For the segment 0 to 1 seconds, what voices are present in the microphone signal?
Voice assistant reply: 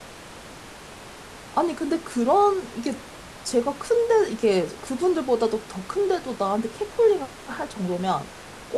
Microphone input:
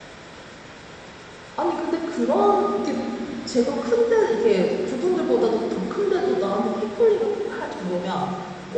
neither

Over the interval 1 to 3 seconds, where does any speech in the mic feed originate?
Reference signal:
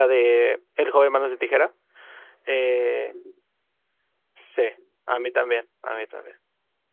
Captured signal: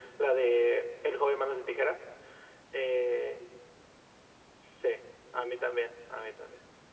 echo only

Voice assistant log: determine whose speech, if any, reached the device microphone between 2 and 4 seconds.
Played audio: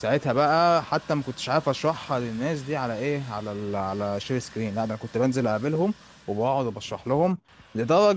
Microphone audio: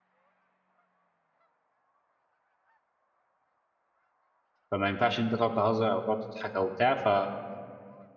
neither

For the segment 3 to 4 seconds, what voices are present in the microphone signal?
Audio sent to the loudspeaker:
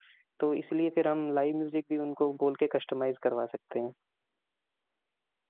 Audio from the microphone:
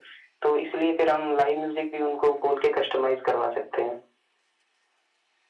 echo only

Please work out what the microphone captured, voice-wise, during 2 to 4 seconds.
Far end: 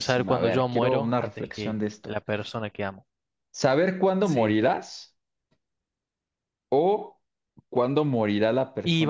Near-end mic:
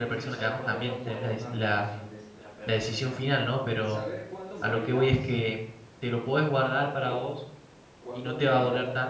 both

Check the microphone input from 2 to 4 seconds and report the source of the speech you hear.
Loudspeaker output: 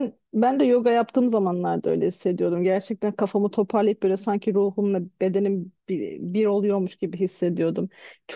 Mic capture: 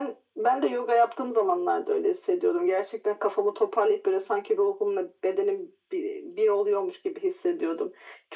echo only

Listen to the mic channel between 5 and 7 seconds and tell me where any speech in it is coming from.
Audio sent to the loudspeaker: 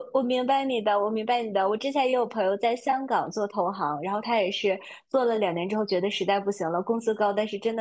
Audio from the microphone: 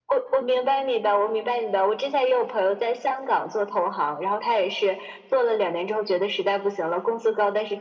echo only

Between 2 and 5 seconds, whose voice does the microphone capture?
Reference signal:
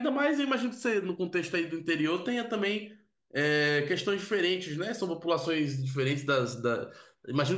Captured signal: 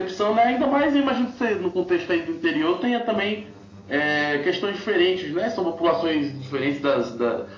echo only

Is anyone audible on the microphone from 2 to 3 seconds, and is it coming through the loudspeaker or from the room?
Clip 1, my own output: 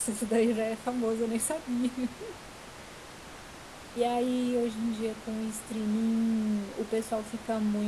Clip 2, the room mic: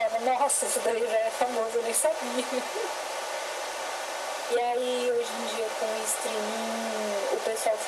echo only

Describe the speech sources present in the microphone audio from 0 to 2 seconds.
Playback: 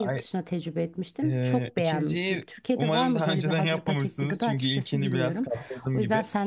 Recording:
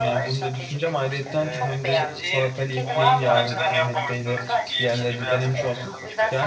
both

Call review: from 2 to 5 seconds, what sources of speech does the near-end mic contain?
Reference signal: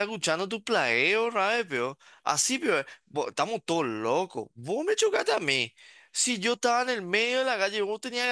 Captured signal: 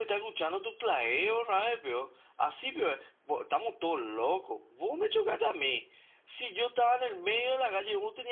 echo only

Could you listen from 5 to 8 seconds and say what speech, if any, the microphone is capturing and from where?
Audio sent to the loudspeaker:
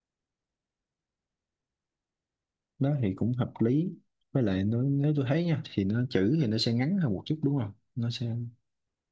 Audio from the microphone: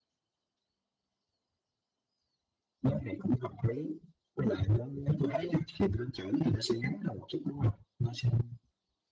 echo only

